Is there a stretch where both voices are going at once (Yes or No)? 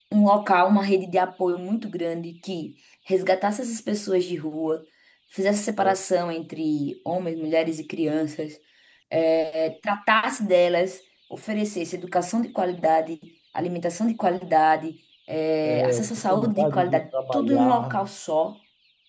Yes